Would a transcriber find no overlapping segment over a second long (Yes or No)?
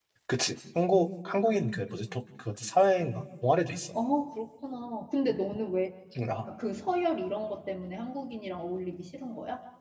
Yes